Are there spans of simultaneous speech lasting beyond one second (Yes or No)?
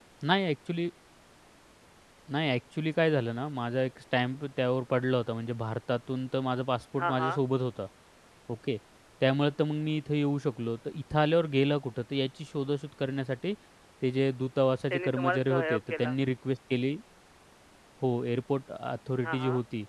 Yes